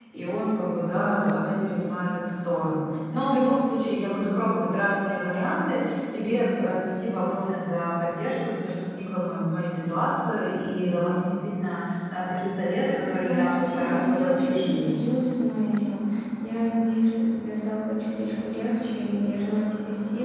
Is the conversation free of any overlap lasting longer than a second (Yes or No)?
No